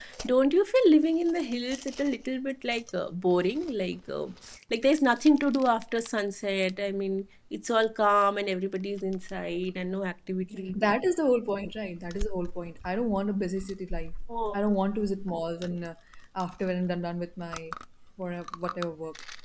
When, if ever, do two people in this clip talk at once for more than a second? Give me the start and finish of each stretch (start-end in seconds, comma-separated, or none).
none